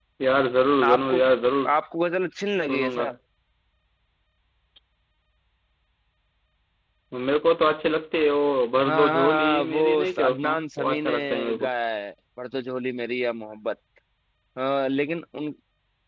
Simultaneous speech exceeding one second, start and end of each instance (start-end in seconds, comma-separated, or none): 8.8-11.7